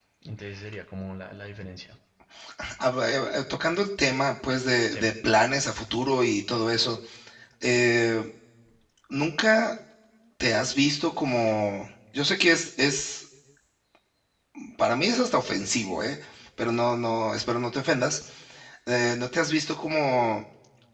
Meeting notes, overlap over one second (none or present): none